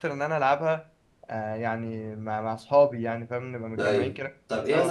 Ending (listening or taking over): taking over